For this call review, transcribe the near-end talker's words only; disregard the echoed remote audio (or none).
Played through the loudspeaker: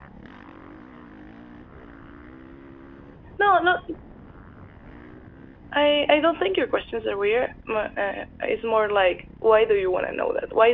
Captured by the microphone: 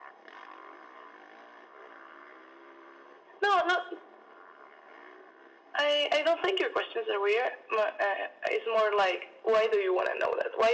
none